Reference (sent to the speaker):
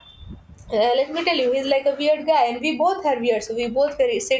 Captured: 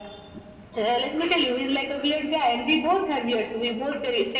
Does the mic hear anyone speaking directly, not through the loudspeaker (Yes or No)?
No